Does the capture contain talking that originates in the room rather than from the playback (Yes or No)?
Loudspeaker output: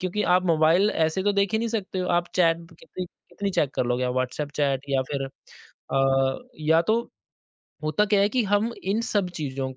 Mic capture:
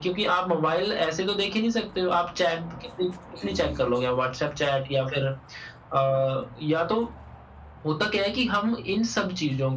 Yes